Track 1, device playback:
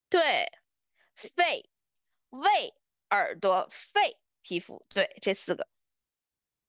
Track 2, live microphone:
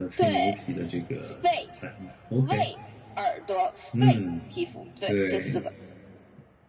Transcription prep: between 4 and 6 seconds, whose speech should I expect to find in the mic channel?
both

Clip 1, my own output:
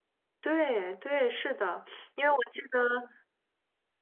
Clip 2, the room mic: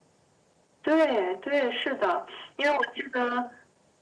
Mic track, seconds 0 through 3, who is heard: echo only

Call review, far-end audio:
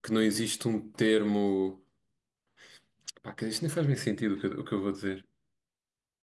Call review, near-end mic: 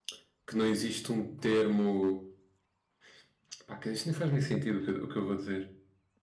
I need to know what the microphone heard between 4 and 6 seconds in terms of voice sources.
echo only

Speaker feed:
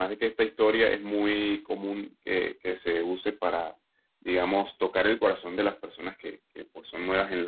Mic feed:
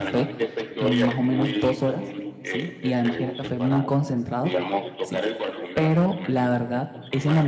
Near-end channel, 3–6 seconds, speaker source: both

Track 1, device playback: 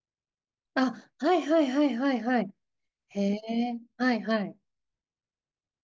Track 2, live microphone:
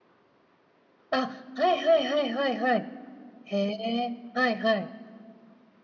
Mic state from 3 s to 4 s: echo only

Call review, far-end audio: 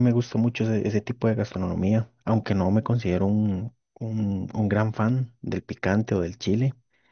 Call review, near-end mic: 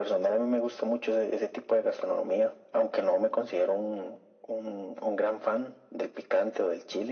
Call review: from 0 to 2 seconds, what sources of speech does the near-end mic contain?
echo only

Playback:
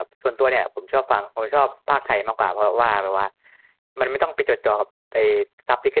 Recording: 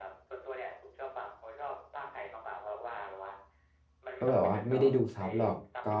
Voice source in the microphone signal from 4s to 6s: both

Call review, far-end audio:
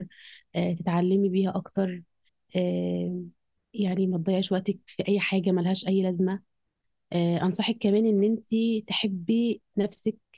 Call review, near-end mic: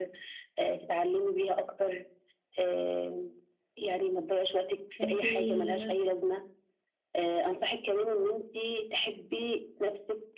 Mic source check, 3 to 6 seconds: both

